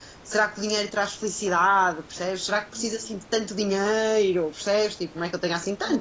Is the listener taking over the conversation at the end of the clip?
No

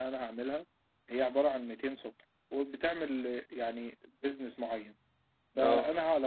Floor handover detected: No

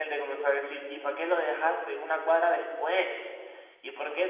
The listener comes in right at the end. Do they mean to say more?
No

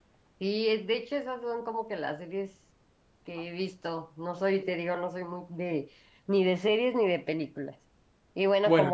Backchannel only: Yes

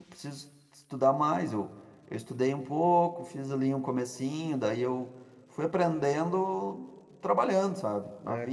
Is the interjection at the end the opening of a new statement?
Yes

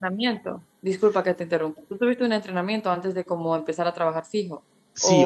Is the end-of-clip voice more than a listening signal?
Yes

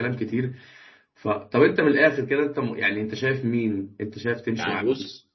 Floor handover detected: Yes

